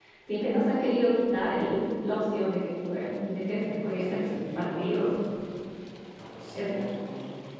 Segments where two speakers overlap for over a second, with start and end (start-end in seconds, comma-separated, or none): 3.5-5.0